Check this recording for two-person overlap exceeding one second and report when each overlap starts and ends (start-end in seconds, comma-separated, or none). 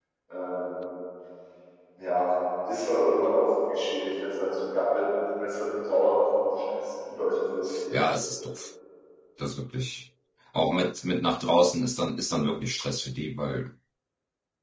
none